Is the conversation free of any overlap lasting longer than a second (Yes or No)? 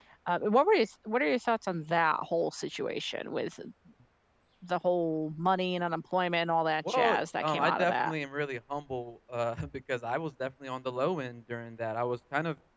No